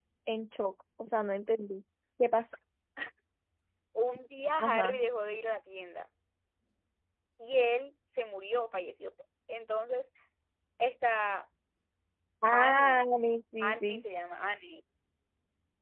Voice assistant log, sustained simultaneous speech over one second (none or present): none